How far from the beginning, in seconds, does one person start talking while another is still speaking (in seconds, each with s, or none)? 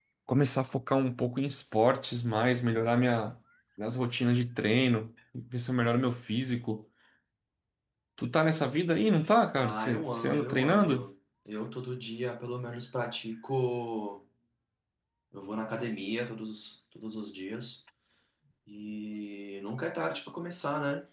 9.6 s